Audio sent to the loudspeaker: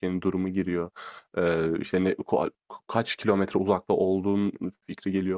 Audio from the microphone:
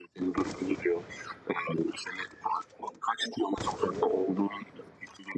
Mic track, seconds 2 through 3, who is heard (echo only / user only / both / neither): echo only